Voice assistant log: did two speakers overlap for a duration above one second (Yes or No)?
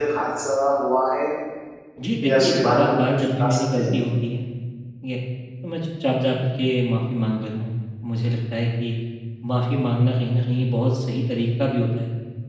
Yes